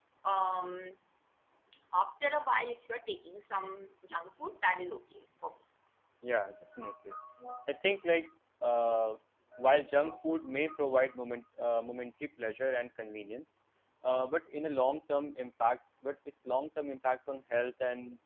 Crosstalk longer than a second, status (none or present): none